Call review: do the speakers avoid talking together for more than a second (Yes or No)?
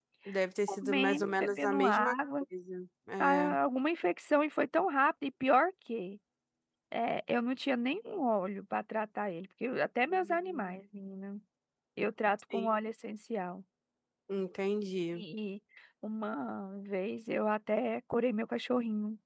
No